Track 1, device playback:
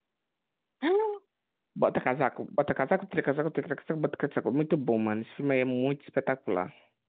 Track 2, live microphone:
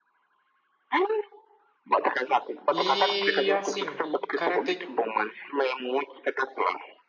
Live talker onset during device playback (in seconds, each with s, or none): 2.7 s